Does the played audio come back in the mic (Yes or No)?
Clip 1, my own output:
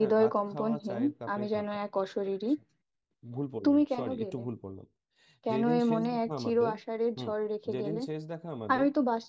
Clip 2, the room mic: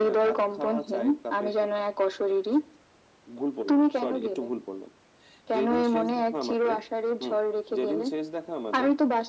Yes